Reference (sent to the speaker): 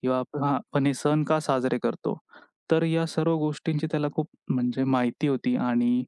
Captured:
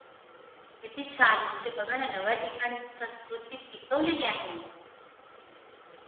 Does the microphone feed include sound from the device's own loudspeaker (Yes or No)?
No